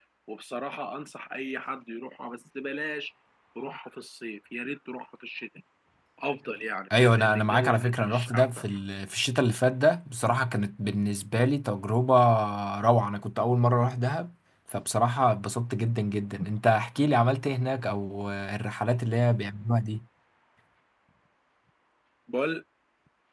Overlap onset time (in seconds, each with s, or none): 6.9 s